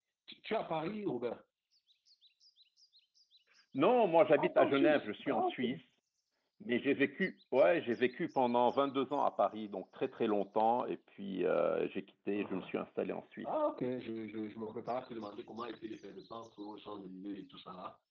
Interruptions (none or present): present